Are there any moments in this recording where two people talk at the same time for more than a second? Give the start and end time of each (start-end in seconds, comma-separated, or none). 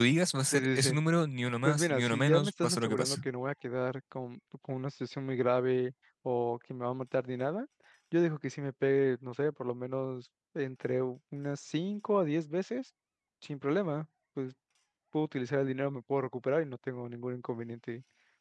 1.6-3.2